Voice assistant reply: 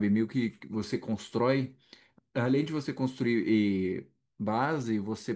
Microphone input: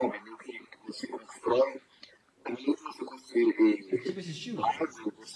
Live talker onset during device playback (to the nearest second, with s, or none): 4 s